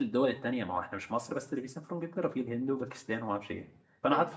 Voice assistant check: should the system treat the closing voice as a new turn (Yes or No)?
No